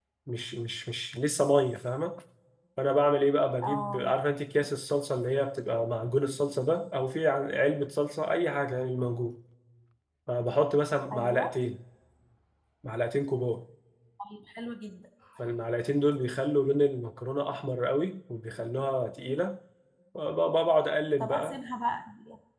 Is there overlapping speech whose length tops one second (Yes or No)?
No